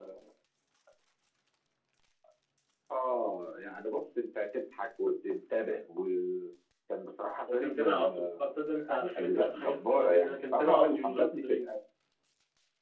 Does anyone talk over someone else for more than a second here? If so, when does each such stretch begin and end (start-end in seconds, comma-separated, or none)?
7.5-11.8